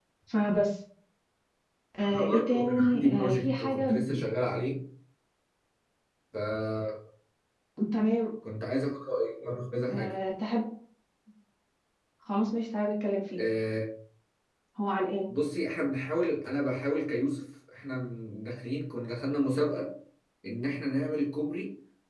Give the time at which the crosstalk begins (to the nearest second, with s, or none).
2 s